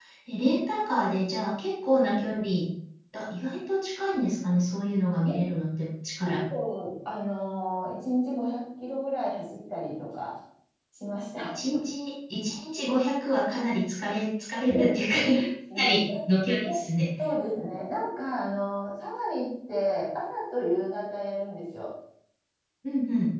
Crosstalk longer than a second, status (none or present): none